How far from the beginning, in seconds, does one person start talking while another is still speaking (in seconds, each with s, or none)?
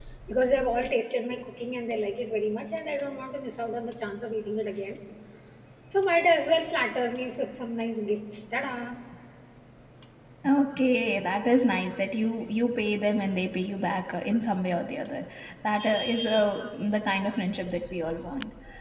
none